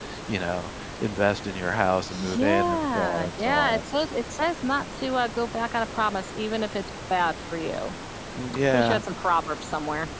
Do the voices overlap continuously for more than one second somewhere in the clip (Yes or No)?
Yes